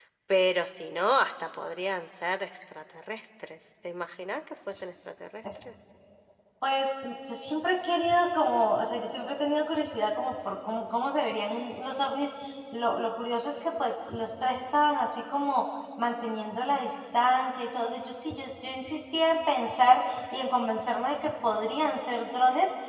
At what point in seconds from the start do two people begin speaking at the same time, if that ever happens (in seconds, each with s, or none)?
none